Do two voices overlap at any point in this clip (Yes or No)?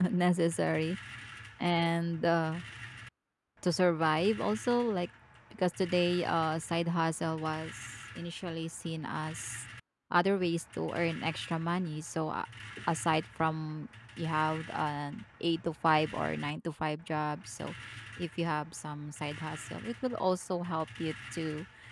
No